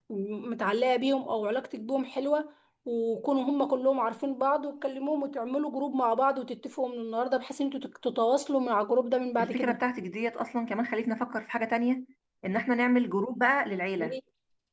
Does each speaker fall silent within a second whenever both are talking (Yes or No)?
Yes